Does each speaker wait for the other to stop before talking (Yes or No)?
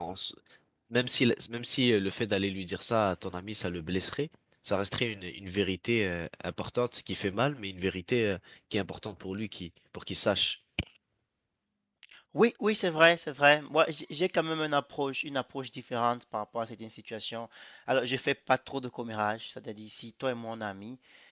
Yes